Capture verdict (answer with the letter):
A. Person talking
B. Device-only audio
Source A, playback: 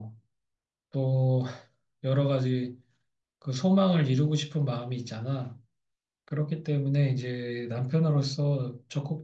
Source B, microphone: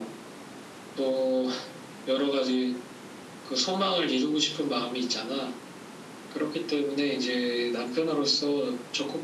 B